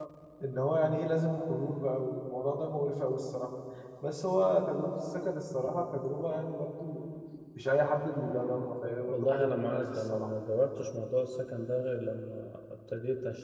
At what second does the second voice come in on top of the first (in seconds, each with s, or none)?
9.0 s